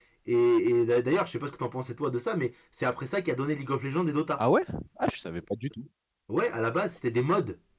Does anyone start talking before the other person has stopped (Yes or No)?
No